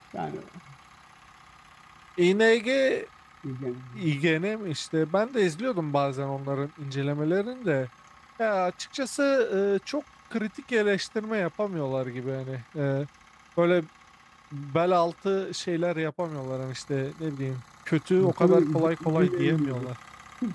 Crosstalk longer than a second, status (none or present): present